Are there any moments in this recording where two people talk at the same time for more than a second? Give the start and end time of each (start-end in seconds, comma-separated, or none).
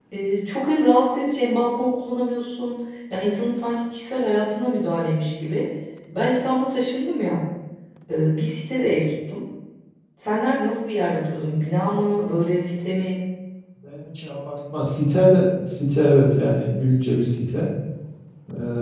none